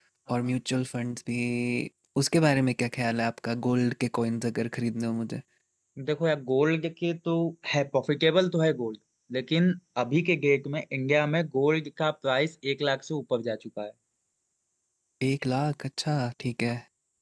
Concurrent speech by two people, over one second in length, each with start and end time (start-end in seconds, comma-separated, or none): none